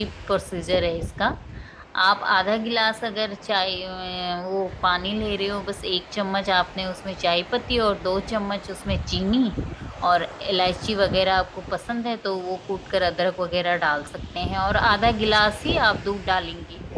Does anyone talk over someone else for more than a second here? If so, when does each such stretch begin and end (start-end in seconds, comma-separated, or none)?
none